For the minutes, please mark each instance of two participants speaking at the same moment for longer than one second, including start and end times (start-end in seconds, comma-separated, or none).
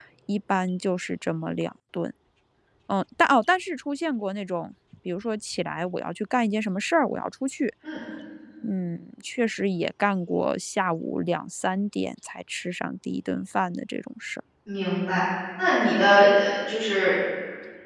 none